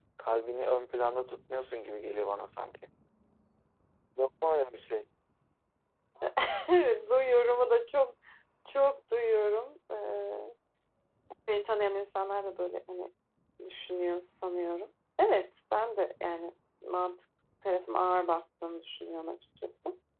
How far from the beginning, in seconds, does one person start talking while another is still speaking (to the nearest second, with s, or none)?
none